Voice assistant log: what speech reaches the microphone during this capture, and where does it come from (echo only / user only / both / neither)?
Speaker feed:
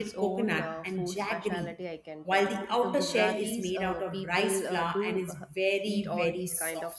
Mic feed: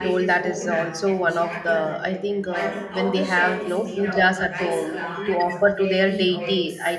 both